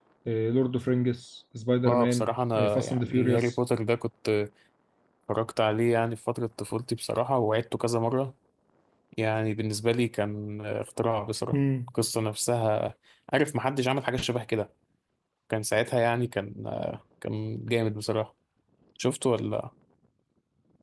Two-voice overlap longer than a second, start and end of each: 1.9-3.5

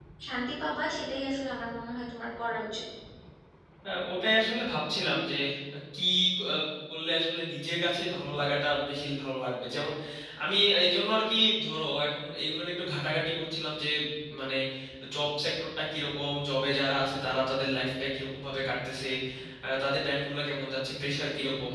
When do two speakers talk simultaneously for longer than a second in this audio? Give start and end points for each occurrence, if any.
none

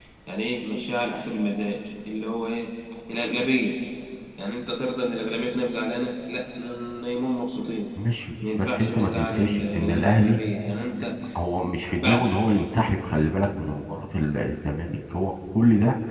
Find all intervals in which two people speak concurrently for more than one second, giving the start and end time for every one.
8.5-10.4

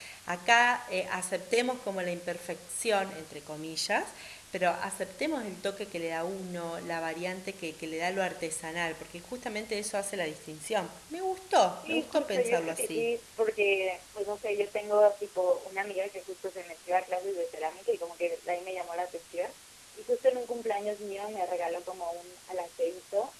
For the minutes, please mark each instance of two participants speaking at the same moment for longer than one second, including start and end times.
11.8-13.1

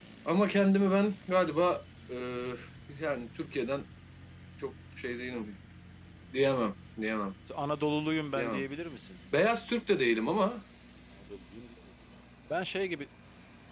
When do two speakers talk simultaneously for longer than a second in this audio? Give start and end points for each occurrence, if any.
none

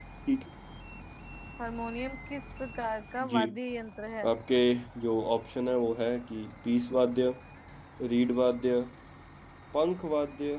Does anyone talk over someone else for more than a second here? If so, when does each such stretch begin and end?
none

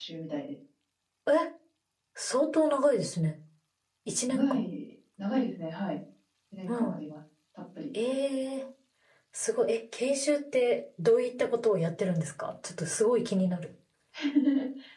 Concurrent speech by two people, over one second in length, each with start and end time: none

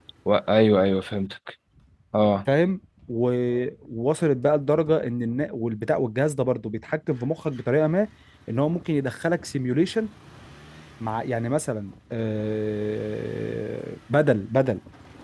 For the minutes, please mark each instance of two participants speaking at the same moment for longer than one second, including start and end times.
none

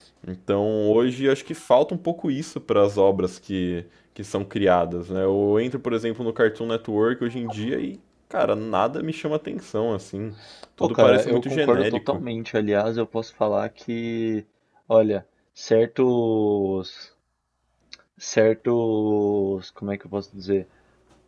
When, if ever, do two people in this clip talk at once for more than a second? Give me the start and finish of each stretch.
10.8-12.2

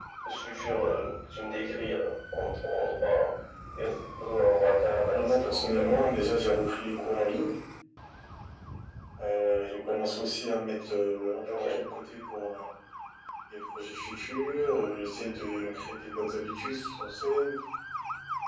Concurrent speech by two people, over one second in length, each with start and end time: 5.1-6.3

